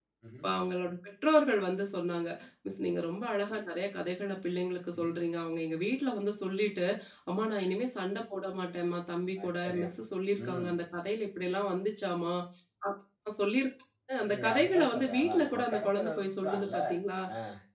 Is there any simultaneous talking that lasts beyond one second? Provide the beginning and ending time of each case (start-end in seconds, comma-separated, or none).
14.3-16.8